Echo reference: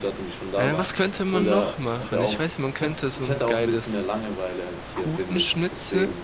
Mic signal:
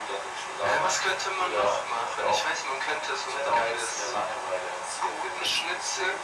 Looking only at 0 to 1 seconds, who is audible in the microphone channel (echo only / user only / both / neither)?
echo only